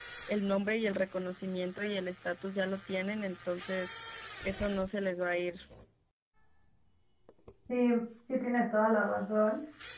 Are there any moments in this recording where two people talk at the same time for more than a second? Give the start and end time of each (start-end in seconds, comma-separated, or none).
none